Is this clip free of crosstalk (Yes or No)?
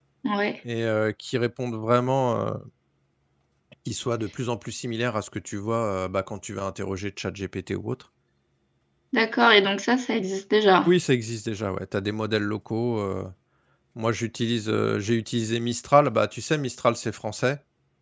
Yes